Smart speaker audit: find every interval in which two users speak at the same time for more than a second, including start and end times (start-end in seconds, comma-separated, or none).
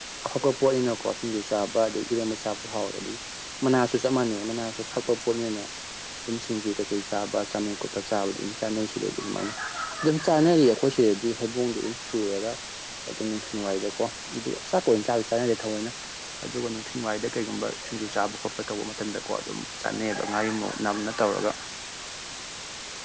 none